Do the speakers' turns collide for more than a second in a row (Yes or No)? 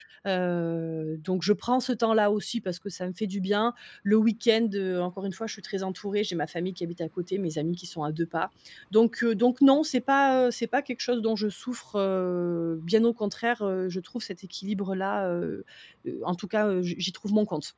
No